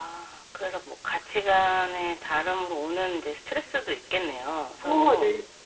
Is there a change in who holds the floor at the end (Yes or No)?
Yes